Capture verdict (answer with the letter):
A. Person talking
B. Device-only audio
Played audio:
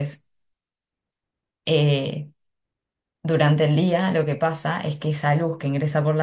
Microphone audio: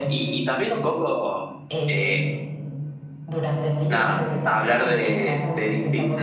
A